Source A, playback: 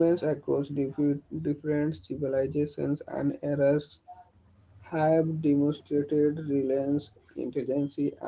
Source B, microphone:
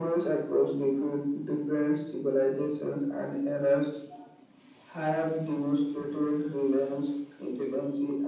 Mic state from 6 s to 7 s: echo only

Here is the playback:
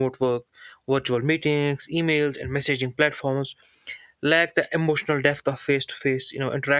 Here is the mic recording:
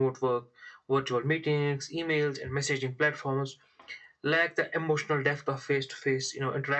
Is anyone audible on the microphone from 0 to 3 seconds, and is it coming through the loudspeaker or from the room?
echo only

